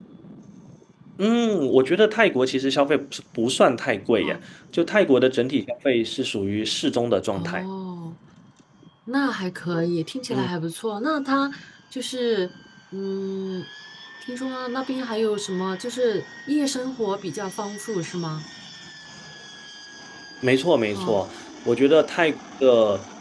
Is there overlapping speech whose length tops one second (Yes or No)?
No